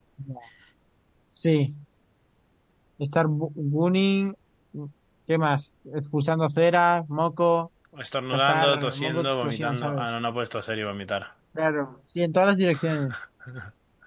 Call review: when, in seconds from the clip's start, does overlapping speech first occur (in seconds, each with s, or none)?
8.3 s